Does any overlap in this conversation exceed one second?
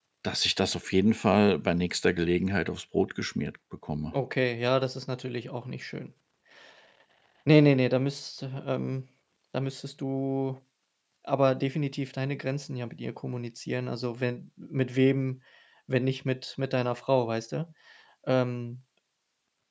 No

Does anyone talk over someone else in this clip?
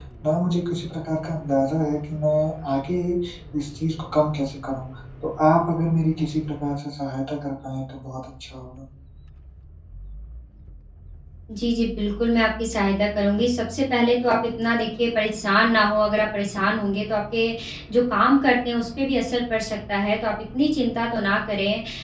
No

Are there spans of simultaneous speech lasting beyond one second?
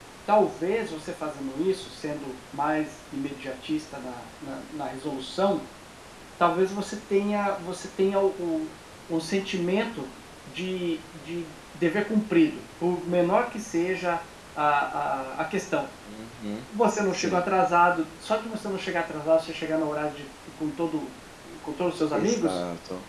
No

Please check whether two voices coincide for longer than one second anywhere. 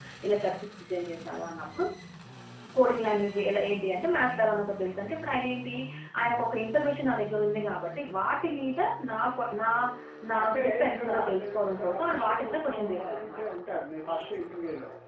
Yes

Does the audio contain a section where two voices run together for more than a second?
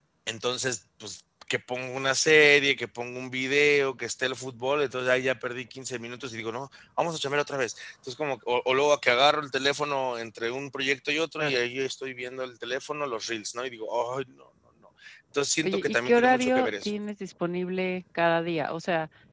Yes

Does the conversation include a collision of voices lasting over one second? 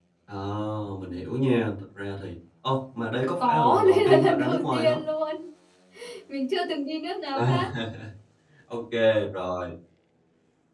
Yes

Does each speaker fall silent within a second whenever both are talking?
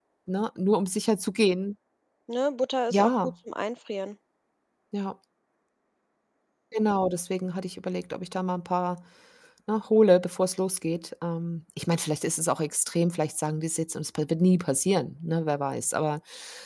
Yes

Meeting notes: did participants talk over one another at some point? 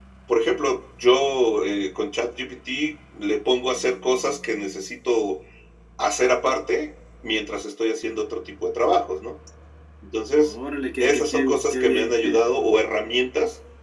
Yes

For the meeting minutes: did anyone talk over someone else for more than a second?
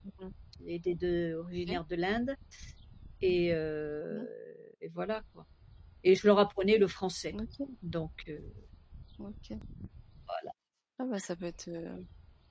No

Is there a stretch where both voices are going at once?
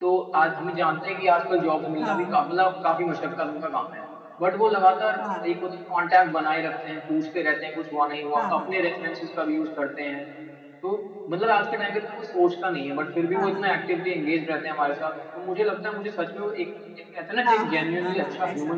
Yes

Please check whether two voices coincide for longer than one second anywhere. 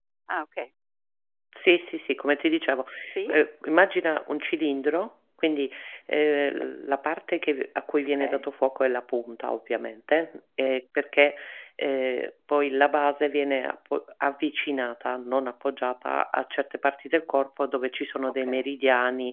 No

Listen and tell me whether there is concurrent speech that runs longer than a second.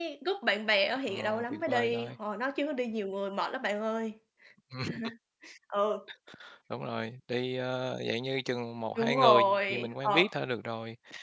Yes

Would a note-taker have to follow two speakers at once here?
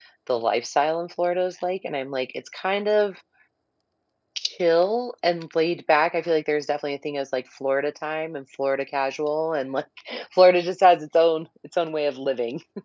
No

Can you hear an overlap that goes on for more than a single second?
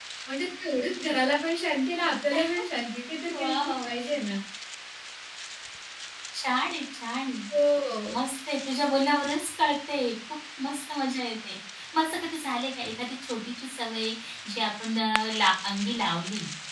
No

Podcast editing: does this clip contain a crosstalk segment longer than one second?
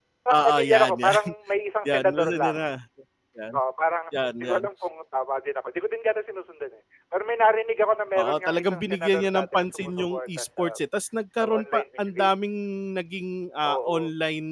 Yes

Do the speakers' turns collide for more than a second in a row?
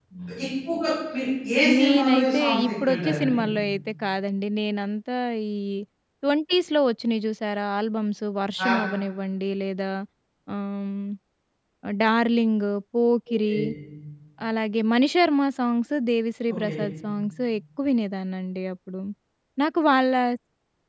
Yes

